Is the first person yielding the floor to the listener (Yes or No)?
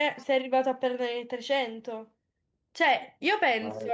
No